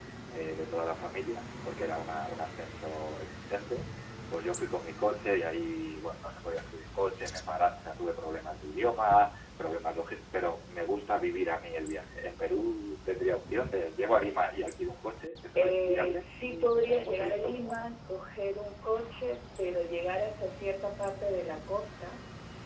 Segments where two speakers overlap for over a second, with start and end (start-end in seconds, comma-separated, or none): 15.6-17.8